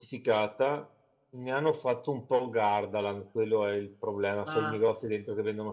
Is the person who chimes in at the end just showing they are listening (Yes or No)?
Yes